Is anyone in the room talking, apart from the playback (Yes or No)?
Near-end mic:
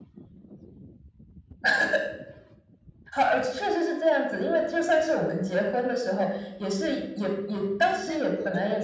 Yes